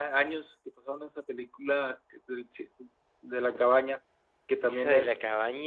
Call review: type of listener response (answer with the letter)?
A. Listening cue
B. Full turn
B